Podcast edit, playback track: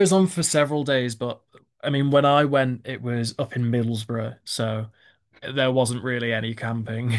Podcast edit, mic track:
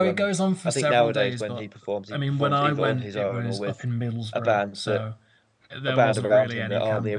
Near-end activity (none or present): present